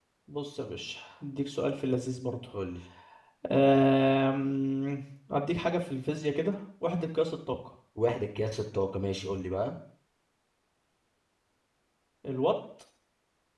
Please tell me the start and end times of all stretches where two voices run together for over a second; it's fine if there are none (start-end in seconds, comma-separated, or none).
none